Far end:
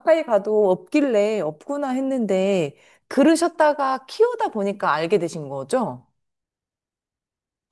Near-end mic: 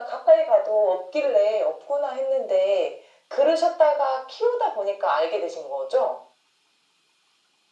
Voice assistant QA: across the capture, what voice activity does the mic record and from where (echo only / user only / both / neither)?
echo only